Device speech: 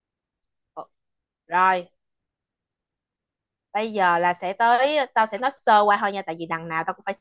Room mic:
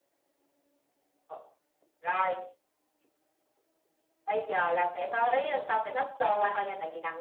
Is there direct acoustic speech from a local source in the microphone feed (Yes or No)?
No